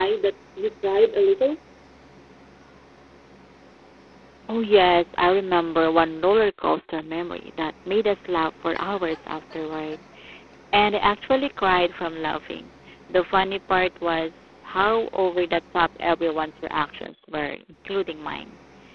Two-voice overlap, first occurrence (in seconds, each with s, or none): none